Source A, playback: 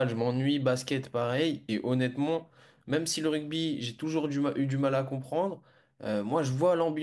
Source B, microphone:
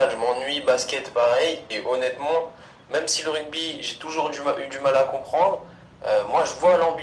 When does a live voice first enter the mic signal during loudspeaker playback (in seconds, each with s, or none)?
none